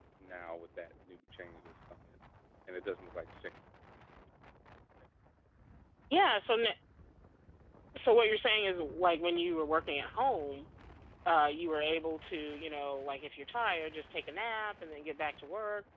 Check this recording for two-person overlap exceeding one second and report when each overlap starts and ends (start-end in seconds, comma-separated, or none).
none